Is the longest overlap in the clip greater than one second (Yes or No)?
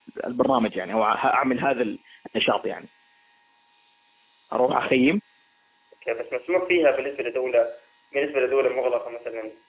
No